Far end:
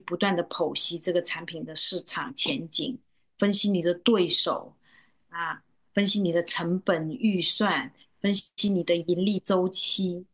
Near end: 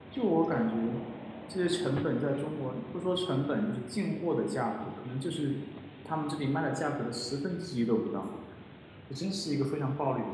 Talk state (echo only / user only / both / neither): user only